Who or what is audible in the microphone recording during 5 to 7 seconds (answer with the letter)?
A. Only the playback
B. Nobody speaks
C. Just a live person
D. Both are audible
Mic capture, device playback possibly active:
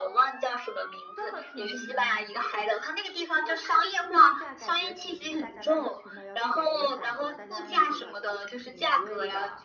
D